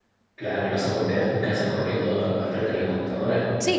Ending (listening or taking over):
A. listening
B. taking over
B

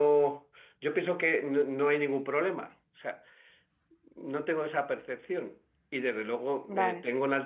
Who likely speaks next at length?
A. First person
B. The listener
A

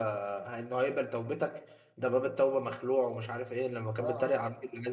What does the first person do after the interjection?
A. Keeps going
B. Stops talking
A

